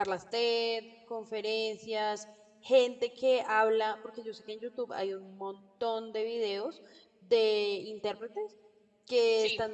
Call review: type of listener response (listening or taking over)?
listening